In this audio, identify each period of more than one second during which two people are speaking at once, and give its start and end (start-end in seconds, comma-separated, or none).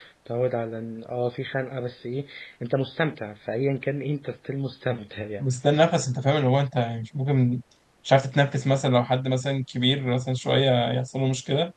none